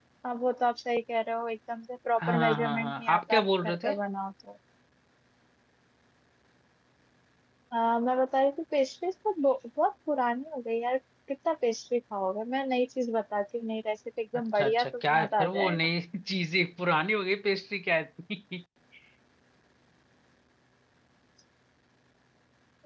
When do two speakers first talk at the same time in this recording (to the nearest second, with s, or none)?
2 s